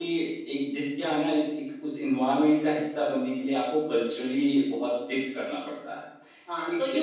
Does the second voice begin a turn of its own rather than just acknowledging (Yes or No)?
Yes